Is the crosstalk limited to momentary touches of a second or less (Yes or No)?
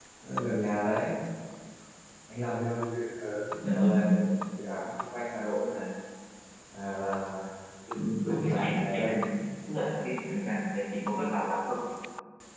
No